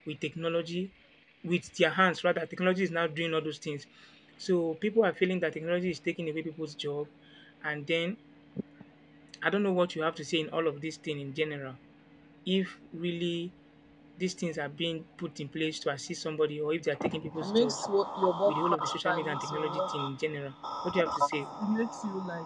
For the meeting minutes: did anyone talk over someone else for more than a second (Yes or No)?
Yes